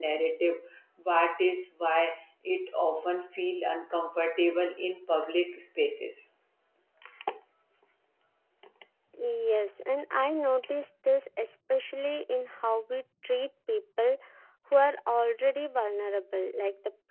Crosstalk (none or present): none